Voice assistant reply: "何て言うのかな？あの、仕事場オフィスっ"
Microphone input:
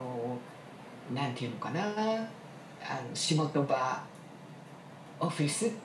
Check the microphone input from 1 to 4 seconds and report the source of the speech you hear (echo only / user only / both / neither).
echo only